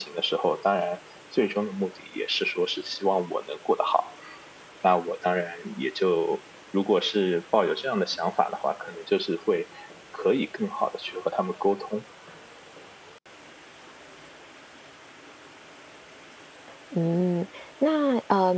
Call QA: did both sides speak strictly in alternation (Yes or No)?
Yes